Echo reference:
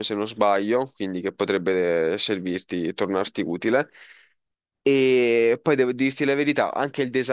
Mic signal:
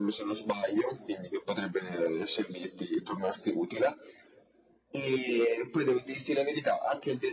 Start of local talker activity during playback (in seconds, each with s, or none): none